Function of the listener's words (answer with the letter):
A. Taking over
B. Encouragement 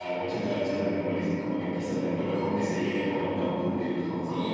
A